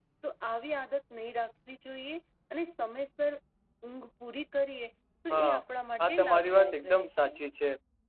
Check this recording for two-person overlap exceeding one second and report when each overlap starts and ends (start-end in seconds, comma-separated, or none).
6.1-7.3